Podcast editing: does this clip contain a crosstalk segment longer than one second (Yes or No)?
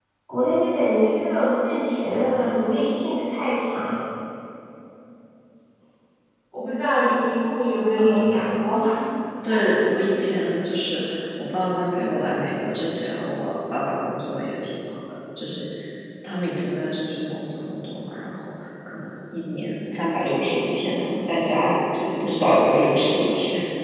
No